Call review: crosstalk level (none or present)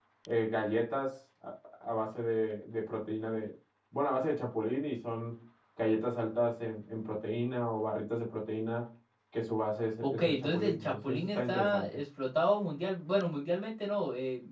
present